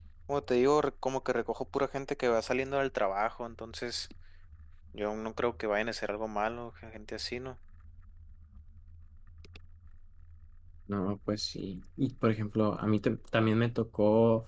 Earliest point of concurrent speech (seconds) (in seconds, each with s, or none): none